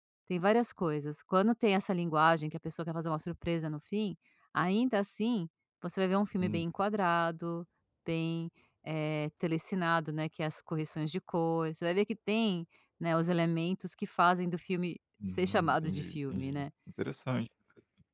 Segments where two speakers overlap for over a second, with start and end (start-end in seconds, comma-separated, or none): 15.3-16.6